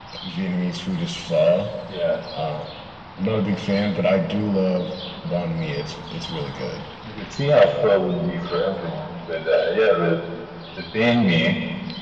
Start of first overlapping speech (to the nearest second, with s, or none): none